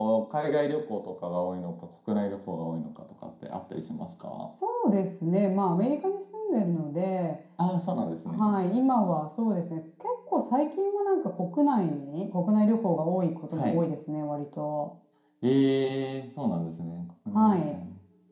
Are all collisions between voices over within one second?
Yes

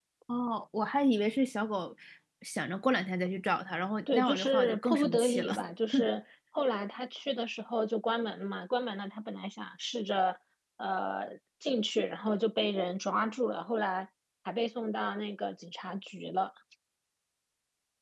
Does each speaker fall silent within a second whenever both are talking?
No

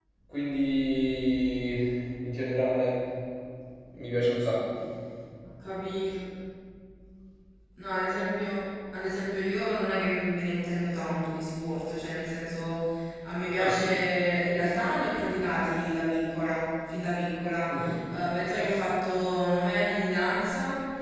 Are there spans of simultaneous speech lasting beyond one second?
No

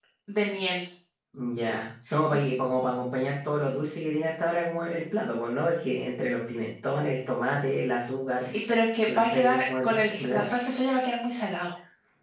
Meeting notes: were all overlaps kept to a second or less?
No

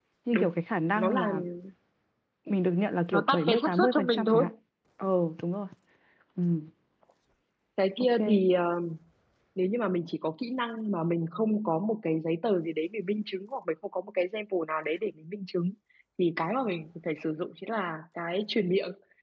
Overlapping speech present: Yes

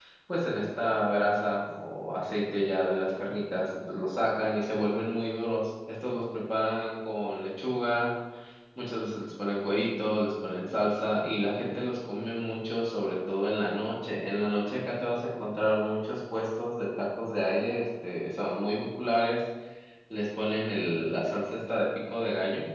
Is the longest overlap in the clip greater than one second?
No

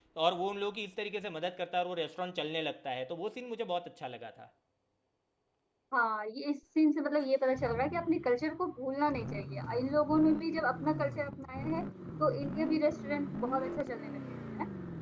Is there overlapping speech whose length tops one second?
No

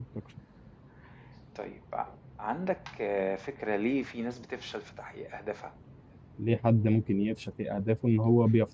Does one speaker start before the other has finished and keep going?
No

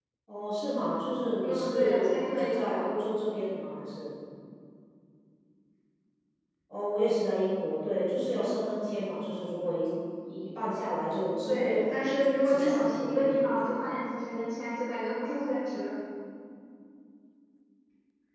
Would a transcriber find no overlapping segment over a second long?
No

